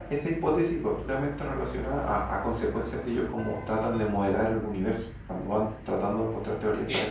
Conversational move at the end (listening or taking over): listening